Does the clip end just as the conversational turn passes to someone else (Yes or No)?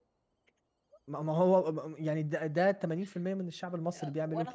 Yes